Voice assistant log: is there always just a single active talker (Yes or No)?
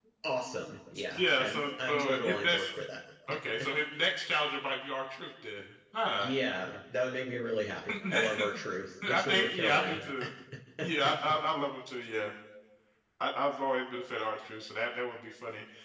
No